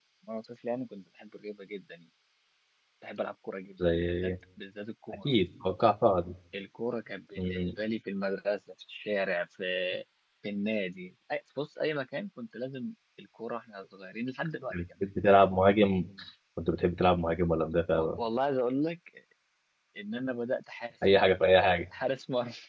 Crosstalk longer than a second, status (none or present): none